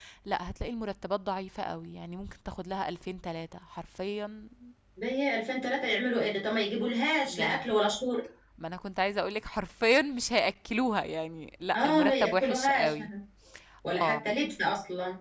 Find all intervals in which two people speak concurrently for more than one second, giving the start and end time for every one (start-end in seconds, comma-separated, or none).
11.8-12.9